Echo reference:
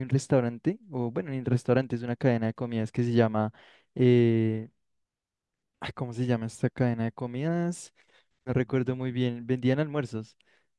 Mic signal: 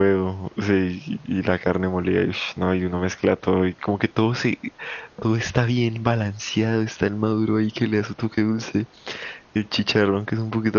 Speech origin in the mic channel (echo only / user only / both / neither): user only